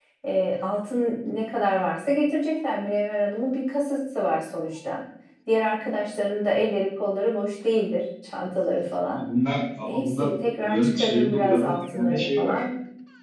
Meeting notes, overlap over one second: present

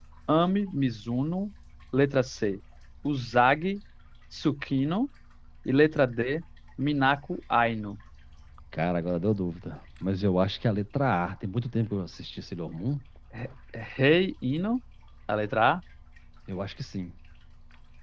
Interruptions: none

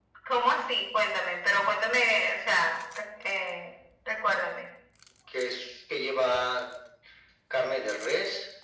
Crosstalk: none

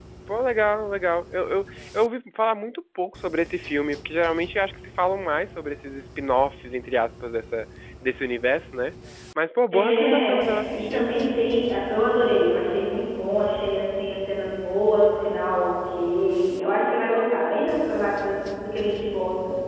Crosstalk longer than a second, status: present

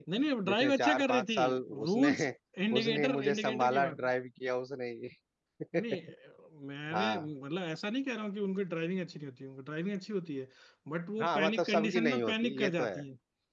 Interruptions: present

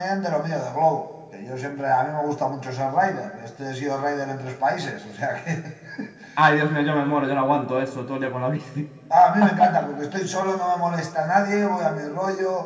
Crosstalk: none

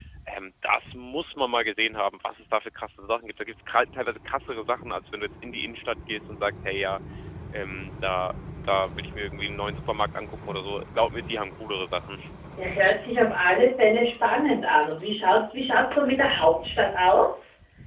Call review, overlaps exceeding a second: none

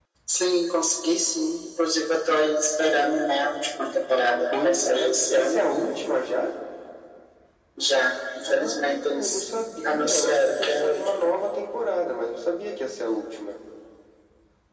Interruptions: present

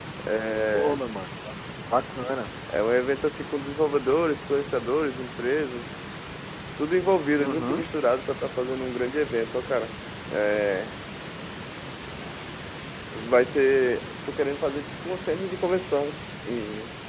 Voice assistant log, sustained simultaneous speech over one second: none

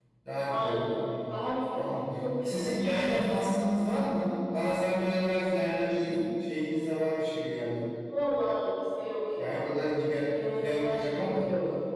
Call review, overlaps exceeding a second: present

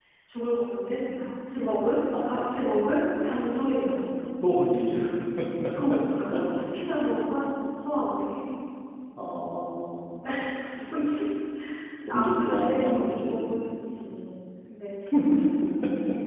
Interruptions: present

